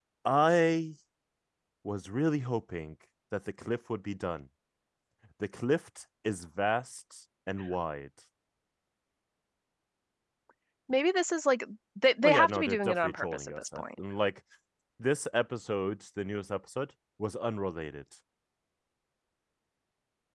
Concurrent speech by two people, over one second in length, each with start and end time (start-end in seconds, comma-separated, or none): 12.2-14.0